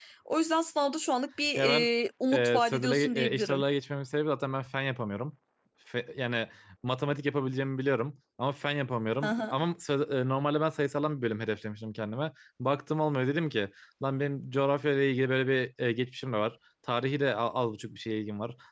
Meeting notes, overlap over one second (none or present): present